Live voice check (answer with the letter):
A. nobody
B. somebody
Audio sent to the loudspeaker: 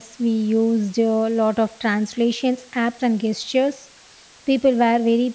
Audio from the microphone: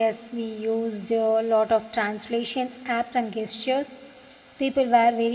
A